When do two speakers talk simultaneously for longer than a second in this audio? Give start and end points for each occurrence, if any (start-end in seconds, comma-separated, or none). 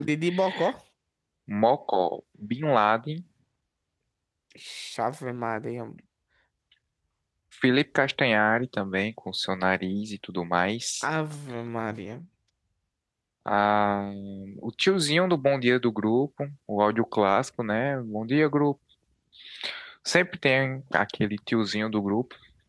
none